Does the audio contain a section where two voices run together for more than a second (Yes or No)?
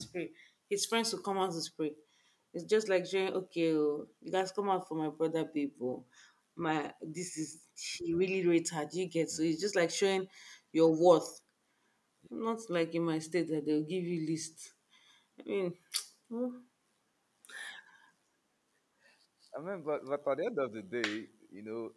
No